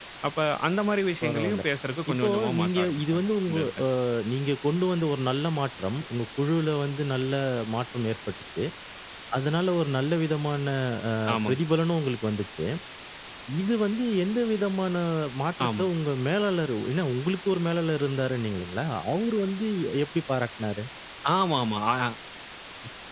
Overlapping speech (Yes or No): Yes